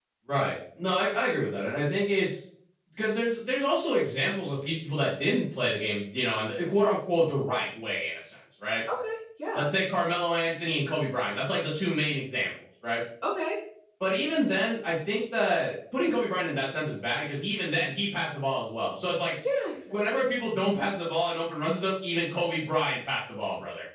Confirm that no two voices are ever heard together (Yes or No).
Yes